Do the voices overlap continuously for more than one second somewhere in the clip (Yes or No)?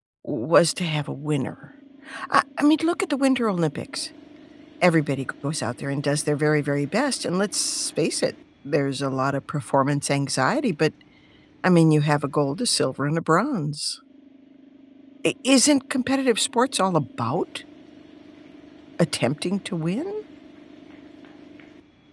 No